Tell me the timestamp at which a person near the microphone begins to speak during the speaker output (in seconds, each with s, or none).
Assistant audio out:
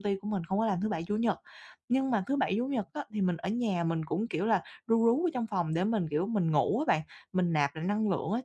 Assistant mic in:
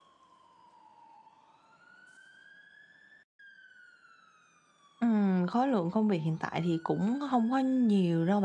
5.0 s